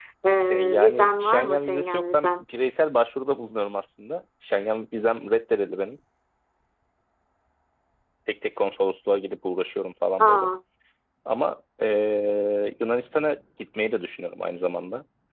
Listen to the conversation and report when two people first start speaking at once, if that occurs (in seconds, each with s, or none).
0.5 s